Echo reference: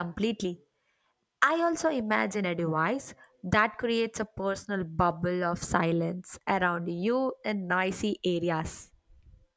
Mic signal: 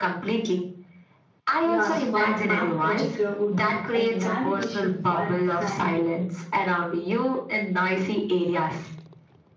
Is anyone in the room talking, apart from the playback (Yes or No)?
Yes